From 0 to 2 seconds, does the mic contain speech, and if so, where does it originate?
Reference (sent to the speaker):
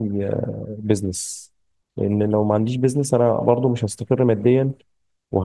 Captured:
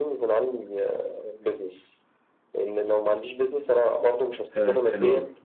echo only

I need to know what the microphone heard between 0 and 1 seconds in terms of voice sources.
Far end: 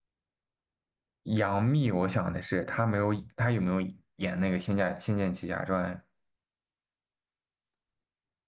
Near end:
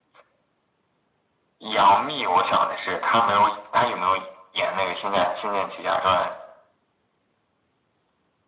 neither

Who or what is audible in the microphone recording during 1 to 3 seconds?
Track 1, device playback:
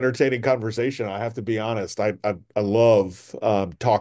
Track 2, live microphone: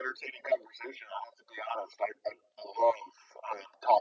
echo only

